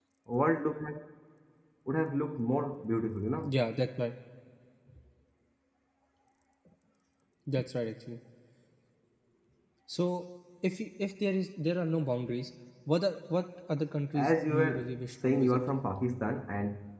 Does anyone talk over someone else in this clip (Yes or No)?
Yes